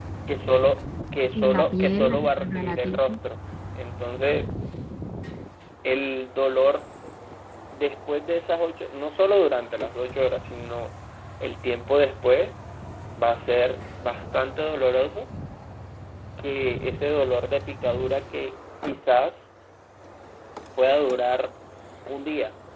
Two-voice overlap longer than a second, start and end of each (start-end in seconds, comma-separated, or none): 1.4-3.0